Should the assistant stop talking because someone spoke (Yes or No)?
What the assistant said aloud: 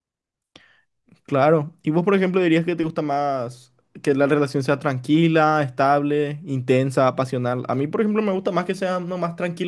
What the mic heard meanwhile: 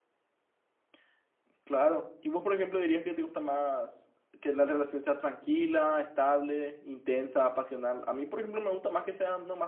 No